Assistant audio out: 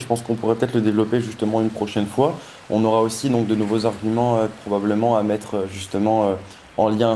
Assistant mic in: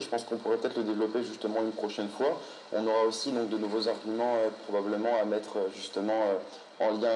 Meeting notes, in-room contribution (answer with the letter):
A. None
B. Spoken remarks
A